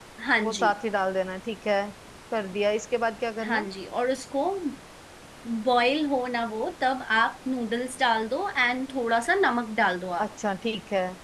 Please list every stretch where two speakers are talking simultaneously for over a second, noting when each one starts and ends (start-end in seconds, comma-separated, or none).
none